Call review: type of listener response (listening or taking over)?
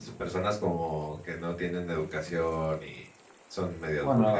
taking over